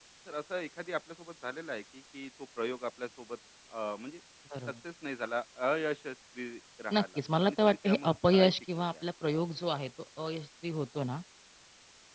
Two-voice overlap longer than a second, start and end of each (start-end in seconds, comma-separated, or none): 6.9-9.0